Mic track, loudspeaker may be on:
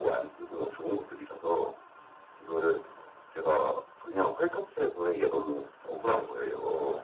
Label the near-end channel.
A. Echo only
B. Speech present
A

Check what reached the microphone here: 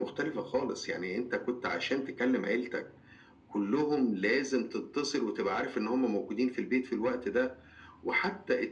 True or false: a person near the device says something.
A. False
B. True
A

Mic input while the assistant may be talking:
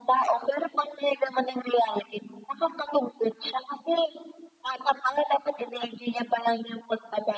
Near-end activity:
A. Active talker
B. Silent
B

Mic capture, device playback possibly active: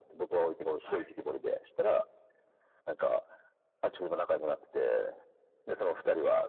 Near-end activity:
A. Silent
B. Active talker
B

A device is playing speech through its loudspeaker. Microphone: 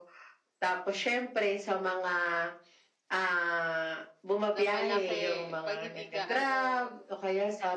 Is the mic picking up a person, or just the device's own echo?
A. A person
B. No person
A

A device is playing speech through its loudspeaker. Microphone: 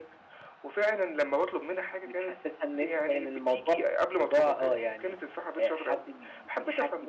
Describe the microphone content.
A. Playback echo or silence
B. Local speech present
A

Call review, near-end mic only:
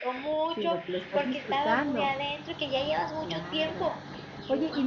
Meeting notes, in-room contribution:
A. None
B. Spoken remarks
B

